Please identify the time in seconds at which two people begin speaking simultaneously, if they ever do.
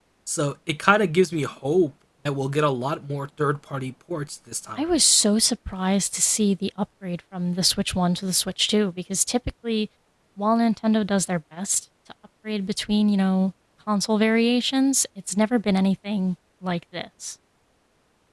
none

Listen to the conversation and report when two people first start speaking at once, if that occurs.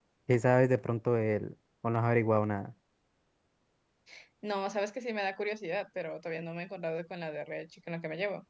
none

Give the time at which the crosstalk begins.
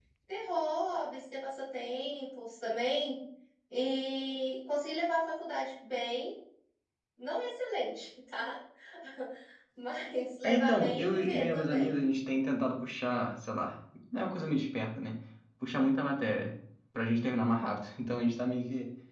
10.4 s

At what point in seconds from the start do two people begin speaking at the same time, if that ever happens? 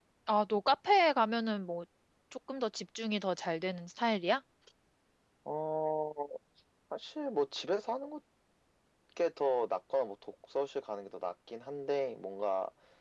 none

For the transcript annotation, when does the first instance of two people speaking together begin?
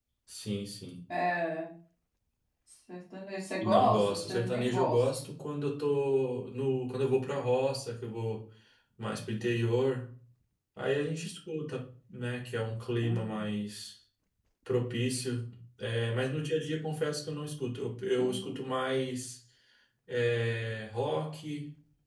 3.6 s

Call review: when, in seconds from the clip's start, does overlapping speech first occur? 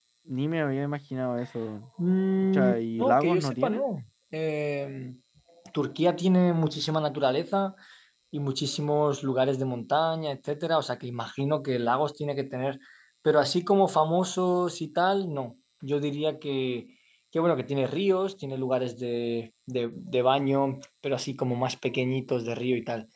2.5 s

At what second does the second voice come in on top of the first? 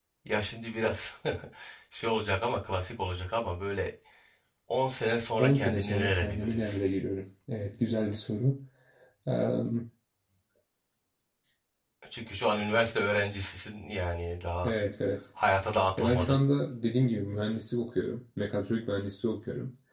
5.4 s

